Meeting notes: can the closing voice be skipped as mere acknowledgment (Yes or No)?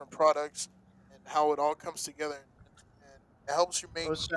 Yes